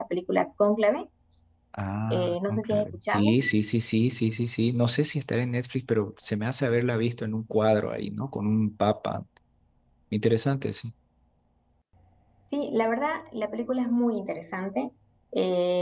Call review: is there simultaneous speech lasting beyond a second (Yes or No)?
Yes